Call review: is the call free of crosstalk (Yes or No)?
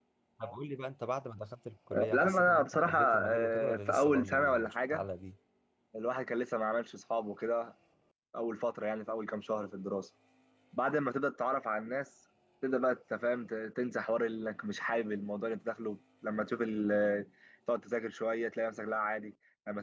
No